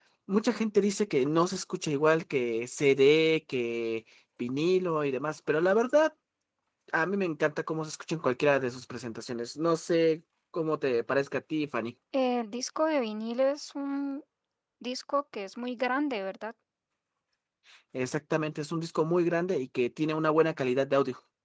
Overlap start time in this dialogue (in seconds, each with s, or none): none